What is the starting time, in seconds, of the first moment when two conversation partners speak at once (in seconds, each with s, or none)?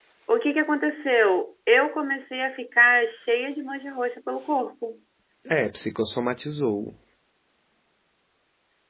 none